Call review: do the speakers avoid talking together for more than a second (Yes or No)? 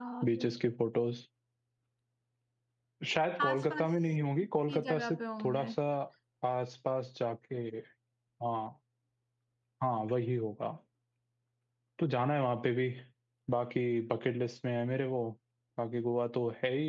No